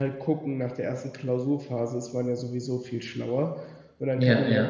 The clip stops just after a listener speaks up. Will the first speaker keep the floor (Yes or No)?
Yes